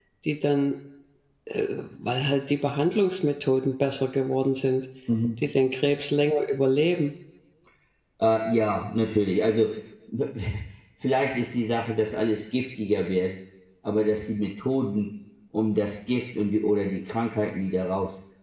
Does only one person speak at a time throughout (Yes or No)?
Yes